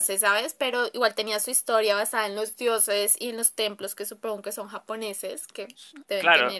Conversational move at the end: taking over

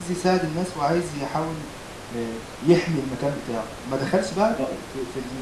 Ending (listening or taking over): listening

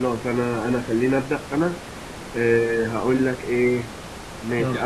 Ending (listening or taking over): listening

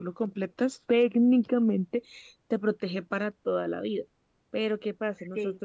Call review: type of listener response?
listening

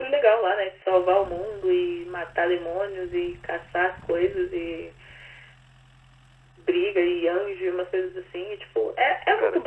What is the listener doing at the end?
listening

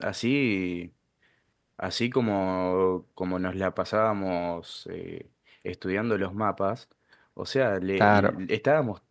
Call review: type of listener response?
listening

